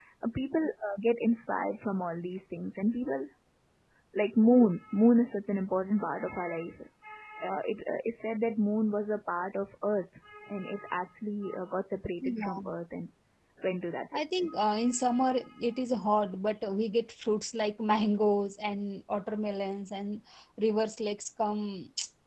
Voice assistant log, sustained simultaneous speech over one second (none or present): none